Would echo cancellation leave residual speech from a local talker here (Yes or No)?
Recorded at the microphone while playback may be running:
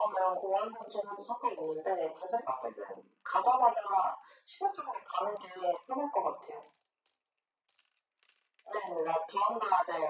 No